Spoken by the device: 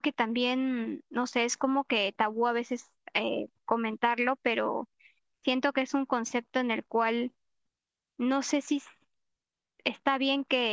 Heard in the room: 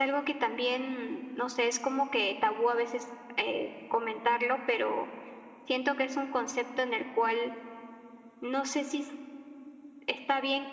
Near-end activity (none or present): none